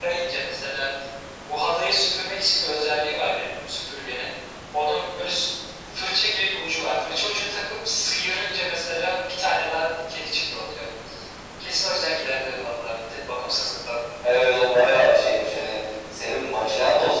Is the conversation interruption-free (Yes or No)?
Yes